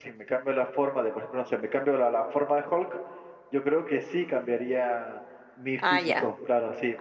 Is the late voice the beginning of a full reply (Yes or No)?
Yes